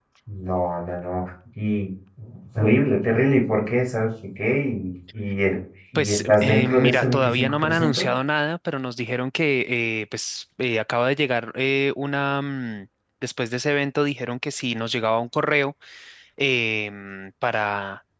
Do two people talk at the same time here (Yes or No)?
Yes